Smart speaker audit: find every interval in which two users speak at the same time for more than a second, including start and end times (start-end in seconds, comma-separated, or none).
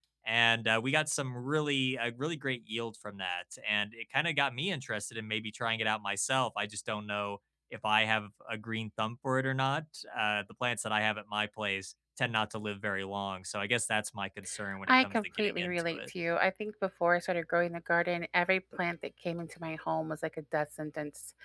14.9-16.1